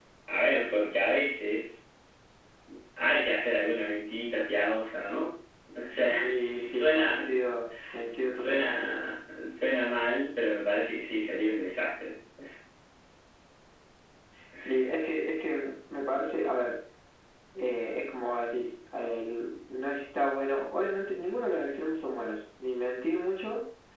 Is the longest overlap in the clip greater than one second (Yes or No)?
Yes